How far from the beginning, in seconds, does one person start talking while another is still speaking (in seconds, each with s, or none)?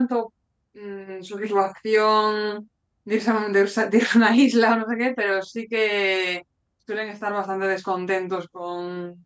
none